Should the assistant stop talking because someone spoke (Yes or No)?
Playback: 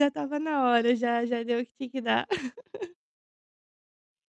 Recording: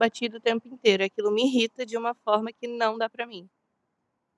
Yes